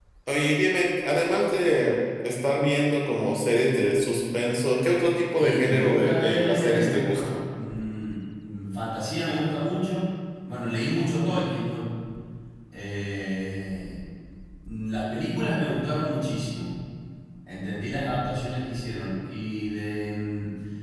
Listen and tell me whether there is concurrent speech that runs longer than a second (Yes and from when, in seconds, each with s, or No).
Yes, from 5.4 s